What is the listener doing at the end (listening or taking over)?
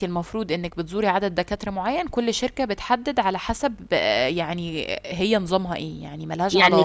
taking over